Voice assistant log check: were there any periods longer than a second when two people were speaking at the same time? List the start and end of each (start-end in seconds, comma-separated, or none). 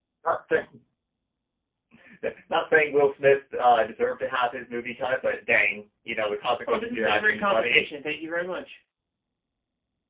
6.7-7.9